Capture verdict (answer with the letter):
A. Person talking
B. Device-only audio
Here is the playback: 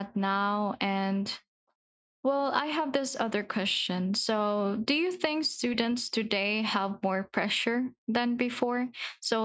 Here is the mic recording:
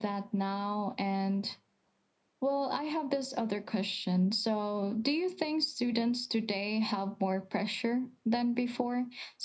B